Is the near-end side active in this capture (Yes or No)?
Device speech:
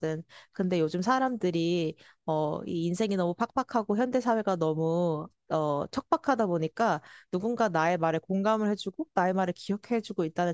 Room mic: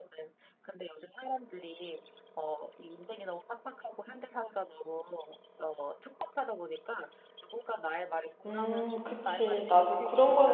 Yes